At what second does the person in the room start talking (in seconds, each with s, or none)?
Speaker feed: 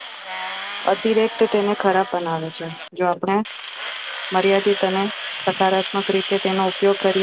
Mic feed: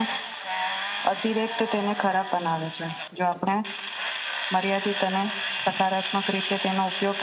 none